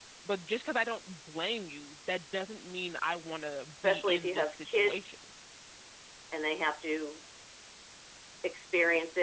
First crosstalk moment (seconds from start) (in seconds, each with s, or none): 3.8 s